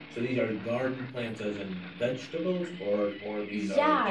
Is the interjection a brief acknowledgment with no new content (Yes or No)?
No